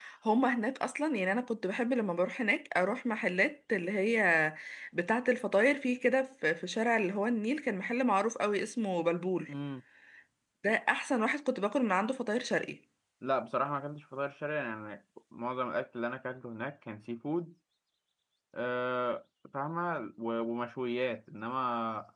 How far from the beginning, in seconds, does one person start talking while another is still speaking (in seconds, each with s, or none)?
none